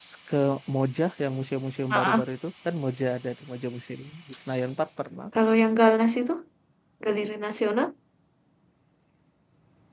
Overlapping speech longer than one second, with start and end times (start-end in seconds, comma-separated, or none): none